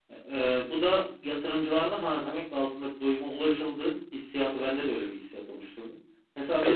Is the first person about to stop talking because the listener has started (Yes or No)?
No